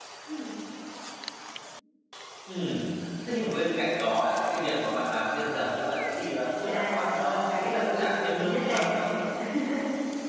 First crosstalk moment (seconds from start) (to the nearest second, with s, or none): 7 s